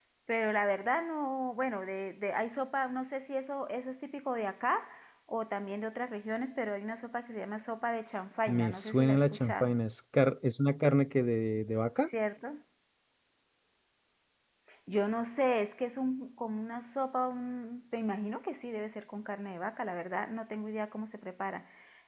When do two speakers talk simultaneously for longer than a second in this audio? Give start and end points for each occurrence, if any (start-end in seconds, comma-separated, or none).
8.5-9.7